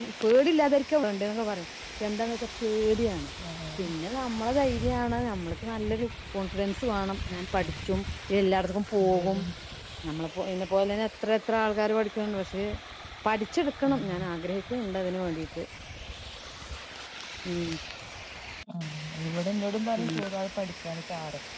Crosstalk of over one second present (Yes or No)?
No